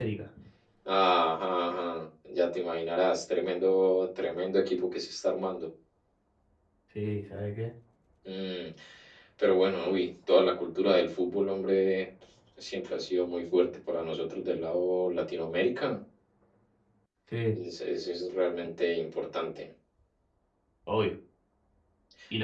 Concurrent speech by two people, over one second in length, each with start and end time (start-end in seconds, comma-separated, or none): none